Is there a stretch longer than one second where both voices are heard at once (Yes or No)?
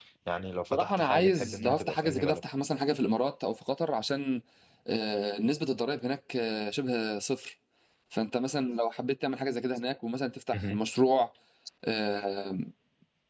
Yes